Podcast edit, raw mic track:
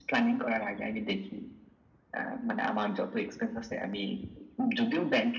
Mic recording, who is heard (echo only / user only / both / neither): echo only